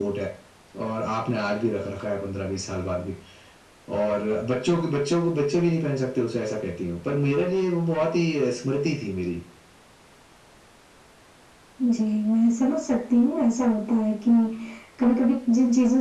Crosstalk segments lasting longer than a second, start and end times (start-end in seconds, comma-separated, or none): none